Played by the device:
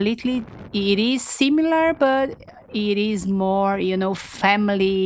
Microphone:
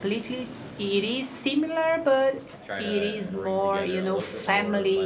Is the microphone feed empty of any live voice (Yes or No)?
No